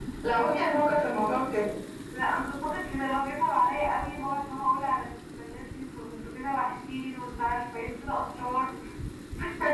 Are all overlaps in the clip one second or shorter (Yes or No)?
Yes